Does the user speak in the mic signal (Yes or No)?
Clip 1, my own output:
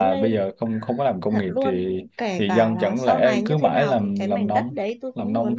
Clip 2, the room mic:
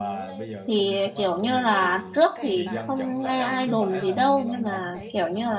Yes